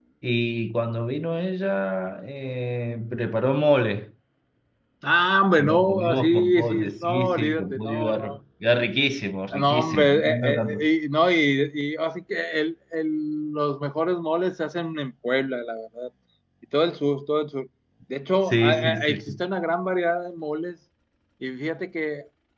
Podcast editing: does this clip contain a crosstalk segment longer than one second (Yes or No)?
Yes